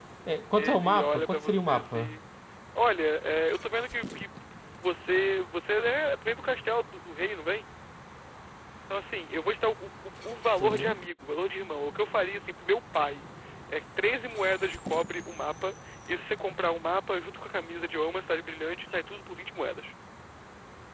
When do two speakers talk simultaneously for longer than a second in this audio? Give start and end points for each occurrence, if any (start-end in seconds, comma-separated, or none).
0.6-2.2